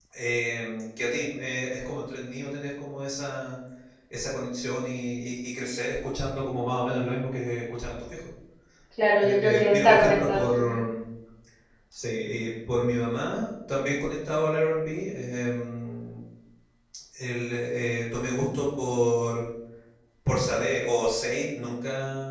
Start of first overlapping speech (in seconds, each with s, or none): 9.2 s